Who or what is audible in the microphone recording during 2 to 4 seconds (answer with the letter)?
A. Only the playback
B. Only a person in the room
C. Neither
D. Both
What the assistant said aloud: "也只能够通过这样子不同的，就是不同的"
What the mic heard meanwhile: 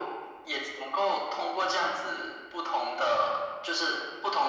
A